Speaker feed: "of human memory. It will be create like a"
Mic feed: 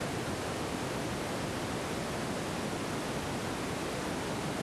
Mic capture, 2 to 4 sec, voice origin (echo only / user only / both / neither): neither